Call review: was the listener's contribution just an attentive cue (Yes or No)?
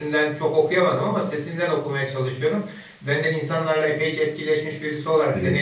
Yes